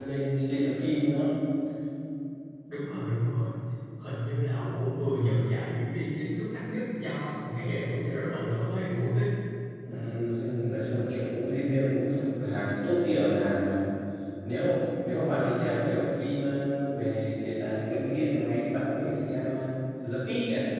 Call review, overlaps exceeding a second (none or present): none